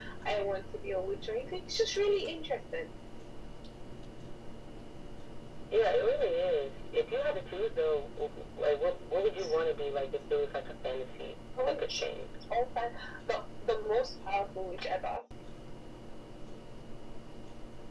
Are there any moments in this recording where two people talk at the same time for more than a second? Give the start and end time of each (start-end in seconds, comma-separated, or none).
none